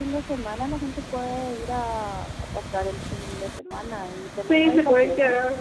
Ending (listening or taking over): taking over